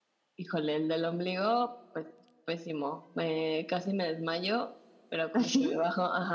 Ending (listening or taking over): listening